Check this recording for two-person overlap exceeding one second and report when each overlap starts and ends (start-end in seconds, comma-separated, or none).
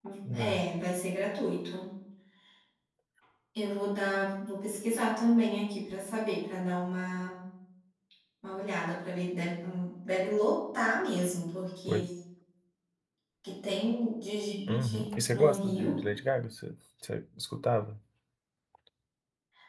14.7-16.0